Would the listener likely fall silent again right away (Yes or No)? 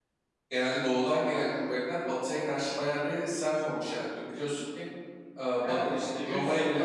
No